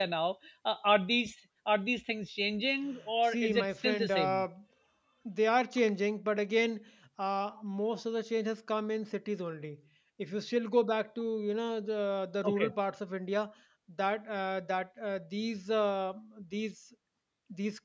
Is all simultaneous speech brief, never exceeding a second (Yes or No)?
No